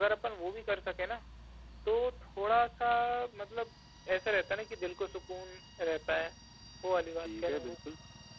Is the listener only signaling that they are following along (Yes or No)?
No